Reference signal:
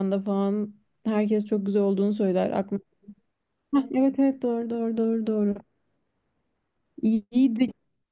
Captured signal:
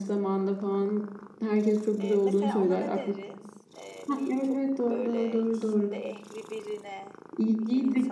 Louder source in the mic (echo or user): echo